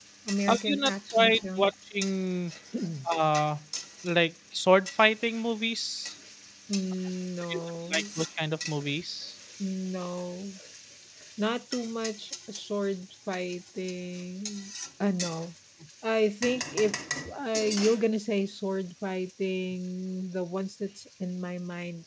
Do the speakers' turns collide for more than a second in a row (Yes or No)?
Yes